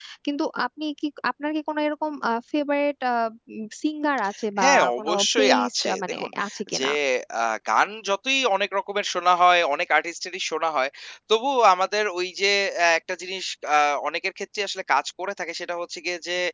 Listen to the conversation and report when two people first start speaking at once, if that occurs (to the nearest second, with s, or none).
5 s